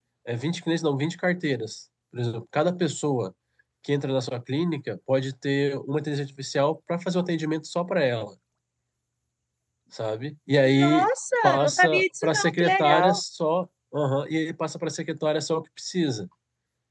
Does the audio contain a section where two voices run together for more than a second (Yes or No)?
Yes